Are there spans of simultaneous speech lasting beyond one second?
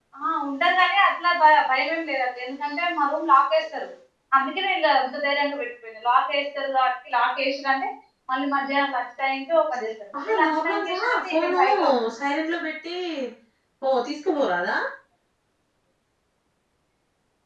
Yes, from 10.1 s

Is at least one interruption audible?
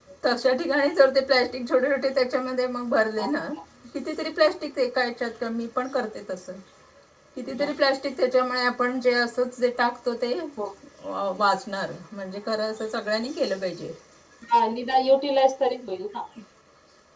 No

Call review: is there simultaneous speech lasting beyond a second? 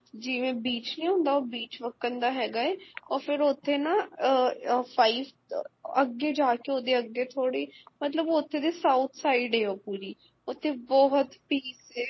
No

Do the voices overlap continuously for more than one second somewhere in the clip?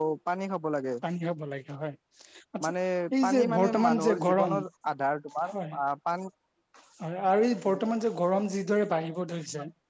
Yes, from 3.2 s

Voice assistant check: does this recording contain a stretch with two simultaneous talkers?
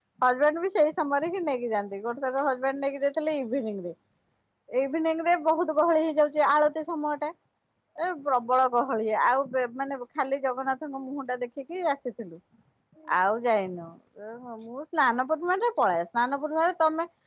No

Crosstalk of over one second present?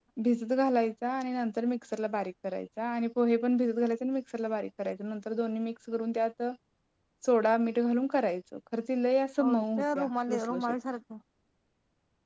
Yes, from 9.4 s

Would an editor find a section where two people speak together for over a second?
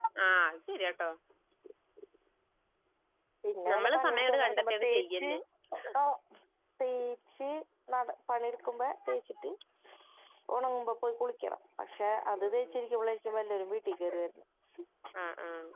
Yes, from 3.7 s

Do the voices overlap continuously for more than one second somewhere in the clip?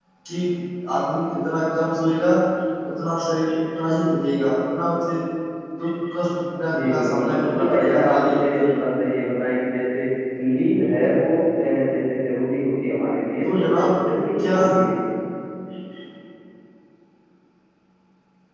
Yes, from 6.9 s

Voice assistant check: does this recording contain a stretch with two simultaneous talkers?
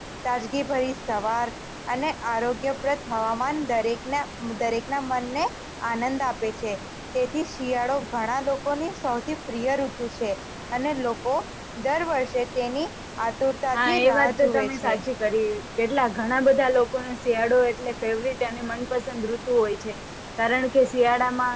Yes, from 13.7 s

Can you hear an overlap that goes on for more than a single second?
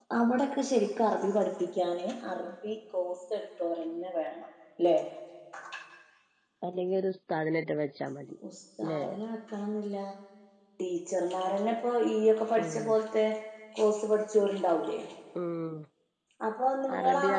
No

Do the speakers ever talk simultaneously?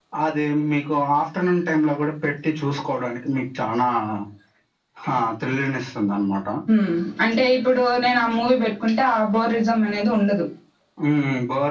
No

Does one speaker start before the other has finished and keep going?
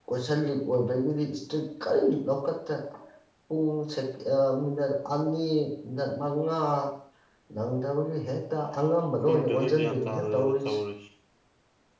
Yes, from 9.3 s

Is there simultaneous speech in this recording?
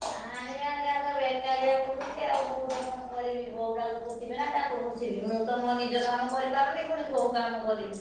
No

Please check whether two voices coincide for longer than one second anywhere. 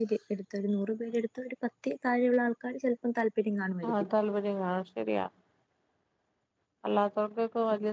No

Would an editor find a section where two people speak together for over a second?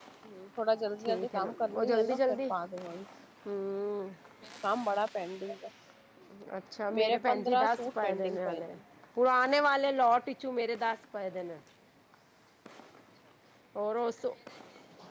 Yes, from 1.1 s

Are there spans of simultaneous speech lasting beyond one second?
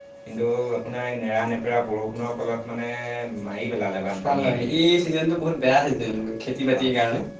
No

